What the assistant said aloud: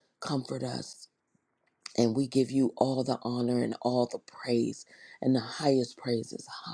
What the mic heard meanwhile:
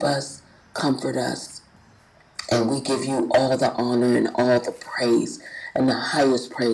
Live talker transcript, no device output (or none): none